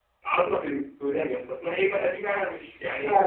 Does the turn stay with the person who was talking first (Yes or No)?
No